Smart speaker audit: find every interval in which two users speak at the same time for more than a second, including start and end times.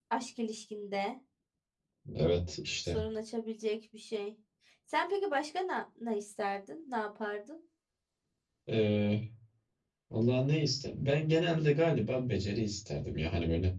none

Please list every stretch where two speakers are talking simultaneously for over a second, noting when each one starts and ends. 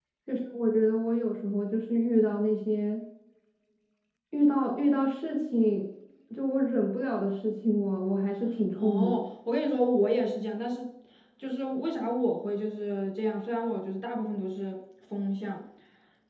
none

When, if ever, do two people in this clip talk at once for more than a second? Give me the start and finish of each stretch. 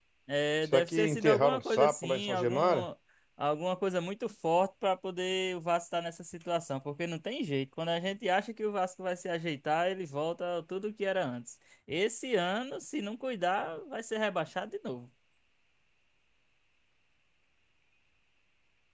0.7-2.9

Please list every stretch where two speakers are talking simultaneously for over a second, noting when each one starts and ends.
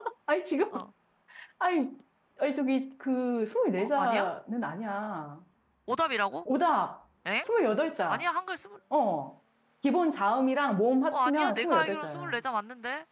11.1-12.4

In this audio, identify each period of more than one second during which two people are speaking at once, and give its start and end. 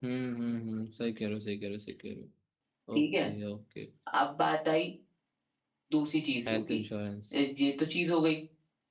none

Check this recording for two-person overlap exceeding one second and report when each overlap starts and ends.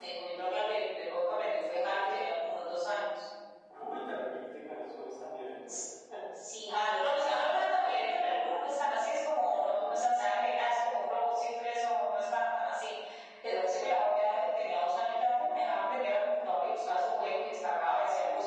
none

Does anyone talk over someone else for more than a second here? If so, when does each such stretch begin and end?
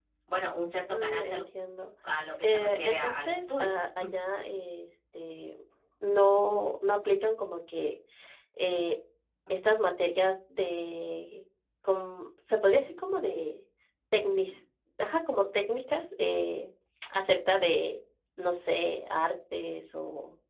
2.4-3.8

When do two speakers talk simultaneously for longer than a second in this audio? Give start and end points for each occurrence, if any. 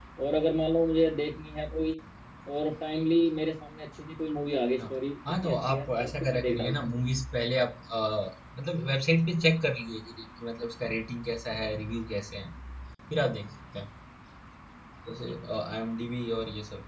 5.4-6.9

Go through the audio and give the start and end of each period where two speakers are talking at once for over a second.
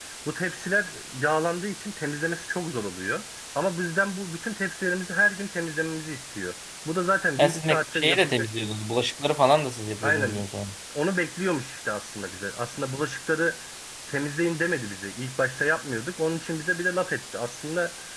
7.4-8.7

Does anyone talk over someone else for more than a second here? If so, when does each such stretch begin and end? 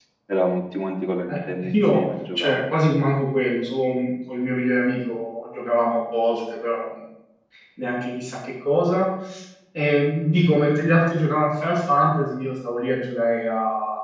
1.3-2.6

